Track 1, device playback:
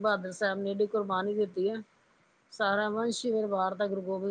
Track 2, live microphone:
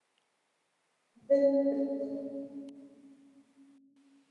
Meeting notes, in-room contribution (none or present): present